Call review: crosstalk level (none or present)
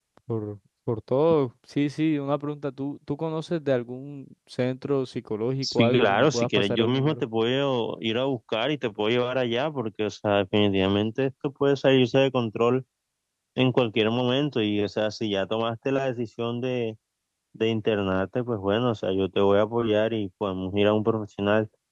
present